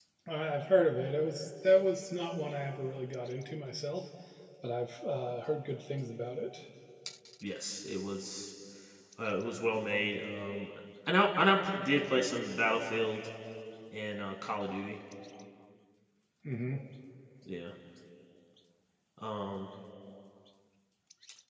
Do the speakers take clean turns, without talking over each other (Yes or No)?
Yes